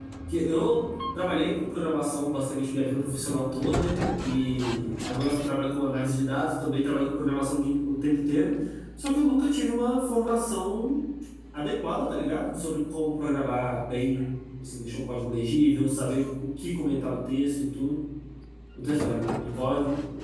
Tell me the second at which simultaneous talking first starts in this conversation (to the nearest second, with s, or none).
none